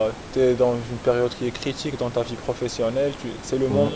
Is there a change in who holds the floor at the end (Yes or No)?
No